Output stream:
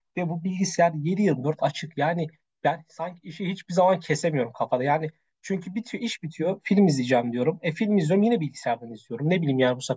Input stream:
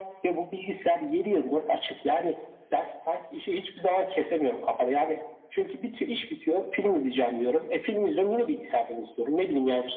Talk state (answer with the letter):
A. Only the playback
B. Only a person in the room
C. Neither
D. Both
A